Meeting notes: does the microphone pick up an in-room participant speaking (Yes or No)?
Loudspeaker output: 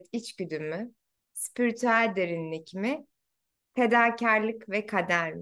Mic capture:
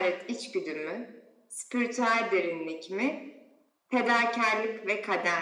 No